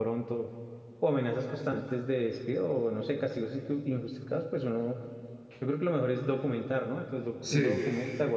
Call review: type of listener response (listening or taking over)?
listening